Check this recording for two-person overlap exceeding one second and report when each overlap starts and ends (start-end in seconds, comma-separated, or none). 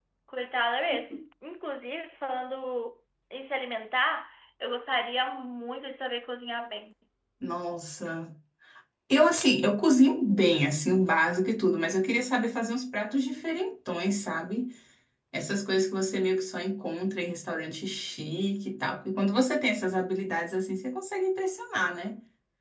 none